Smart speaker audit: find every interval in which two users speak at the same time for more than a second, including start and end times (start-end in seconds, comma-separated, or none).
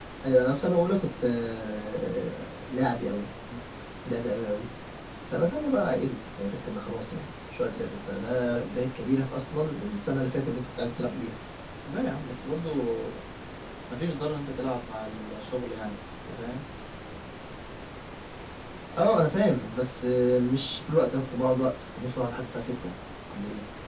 none